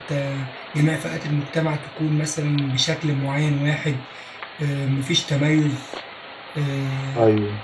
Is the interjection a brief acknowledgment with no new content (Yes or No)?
Yes